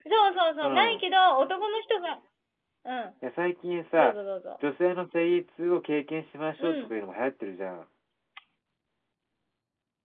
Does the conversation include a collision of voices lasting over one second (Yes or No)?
No